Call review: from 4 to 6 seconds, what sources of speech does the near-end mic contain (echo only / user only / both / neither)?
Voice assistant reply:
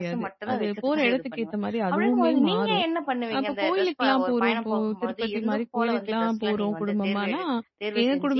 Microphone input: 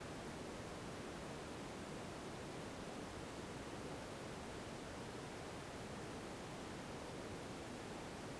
neither